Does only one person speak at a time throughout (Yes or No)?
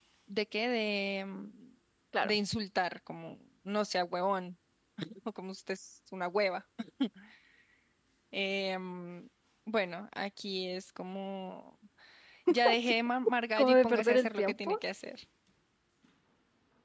No